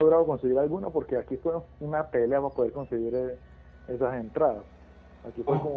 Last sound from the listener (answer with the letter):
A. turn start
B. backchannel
B